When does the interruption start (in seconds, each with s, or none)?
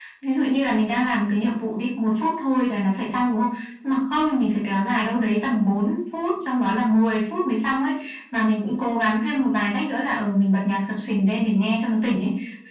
none